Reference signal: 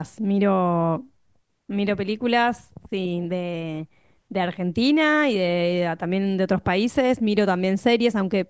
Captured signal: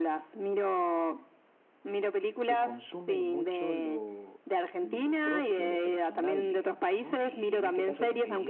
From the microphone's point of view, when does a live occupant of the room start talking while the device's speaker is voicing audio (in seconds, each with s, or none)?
2.4 s